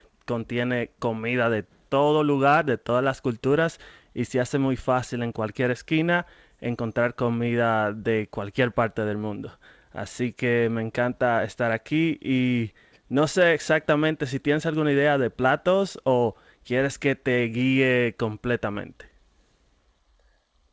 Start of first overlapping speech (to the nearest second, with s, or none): none